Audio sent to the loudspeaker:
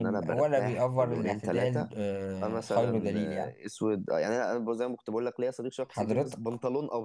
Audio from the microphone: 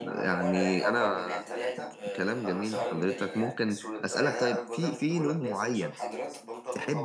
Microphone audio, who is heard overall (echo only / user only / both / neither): both